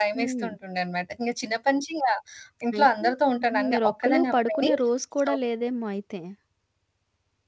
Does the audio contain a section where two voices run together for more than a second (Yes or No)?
Yes